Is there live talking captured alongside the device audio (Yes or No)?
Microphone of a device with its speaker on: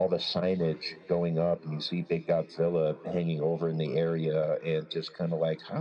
No